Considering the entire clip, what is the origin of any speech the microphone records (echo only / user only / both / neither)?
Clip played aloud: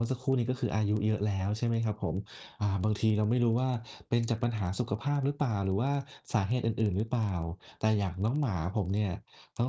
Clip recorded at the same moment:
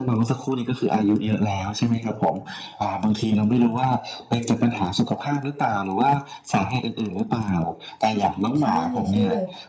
both